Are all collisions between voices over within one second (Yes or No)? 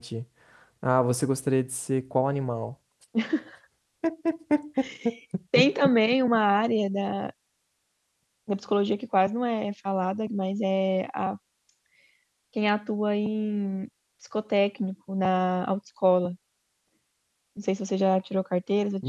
Yes